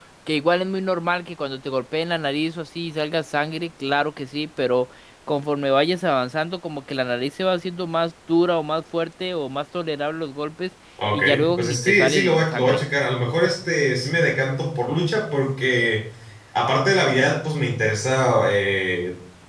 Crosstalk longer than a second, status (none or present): present